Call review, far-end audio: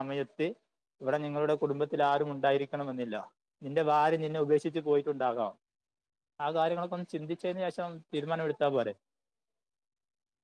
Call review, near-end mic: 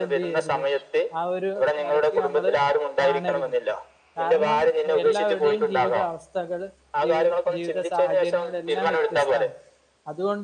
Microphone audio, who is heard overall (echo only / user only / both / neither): both